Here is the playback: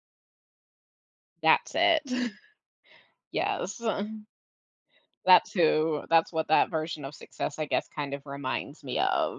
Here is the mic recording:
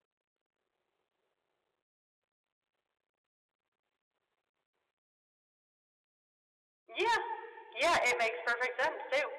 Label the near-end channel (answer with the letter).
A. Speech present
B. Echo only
A